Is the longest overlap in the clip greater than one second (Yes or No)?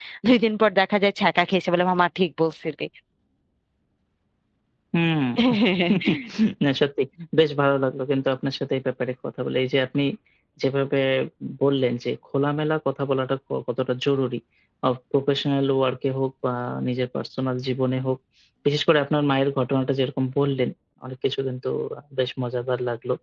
No